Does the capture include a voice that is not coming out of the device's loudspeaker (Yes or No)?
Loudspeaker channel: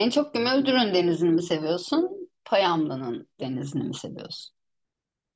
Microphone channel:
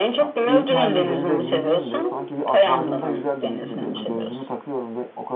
Yes